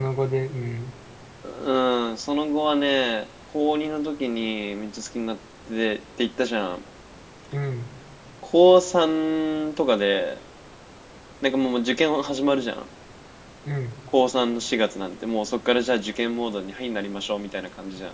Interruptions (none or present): none